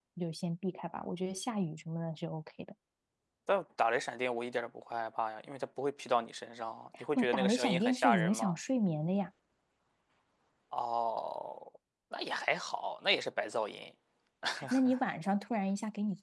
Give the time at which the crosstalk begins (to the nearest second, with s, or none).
7 s